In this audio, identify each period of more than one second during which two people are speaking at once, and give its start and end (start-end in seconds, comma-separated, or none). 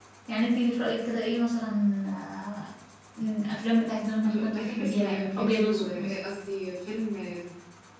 4.3-6.1